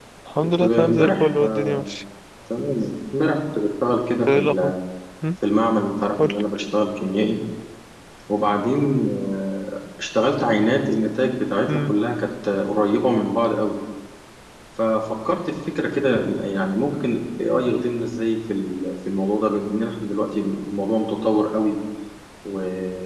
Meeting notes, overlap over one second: present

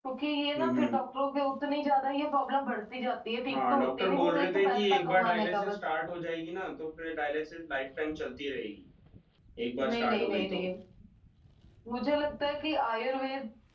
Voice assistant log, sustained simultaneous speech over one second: present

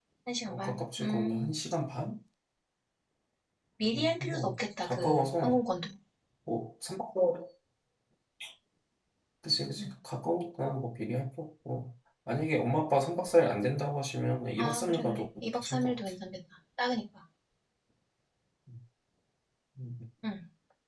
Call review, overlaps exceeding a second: present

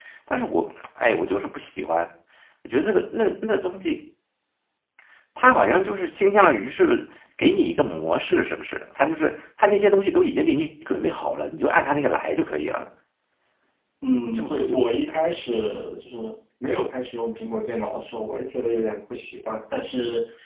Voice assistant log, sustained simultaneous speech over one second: none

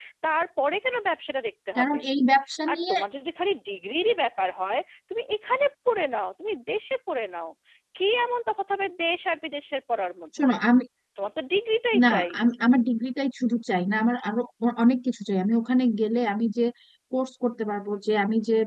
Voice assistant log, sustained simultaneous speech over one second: none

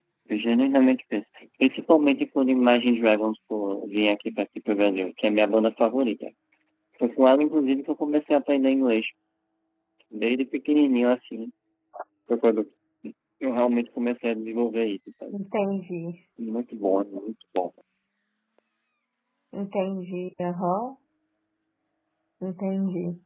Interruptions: none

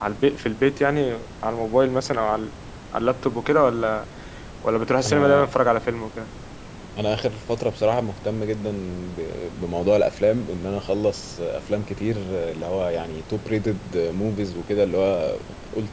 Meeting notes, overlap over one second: none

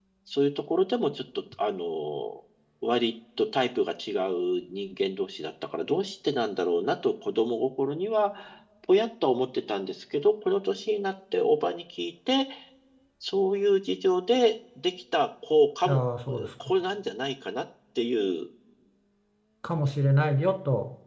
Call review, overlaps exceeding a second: none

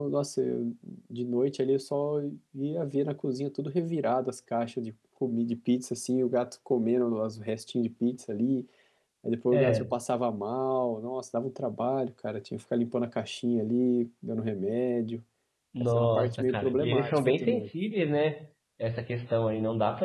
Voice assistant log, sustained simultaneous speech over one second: present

